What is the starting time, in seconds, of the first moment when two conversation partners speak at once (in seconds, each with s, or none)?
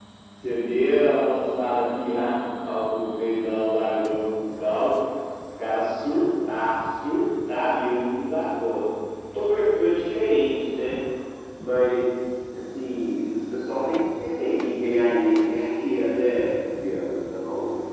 none